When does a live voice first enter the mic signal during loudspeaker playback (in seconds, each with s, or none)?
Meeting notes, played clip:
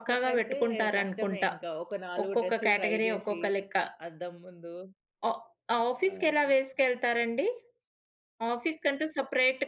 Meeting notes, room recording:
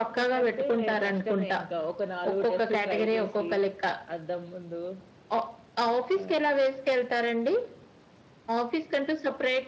none